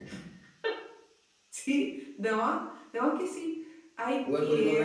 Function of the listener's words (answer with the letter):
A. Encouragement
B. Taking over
B